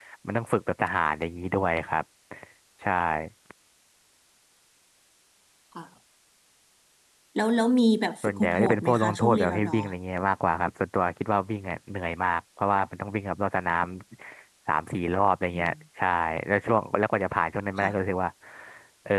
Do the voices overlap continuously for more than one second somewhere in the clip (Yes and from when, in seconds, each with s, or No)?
Yes, from 8.2 s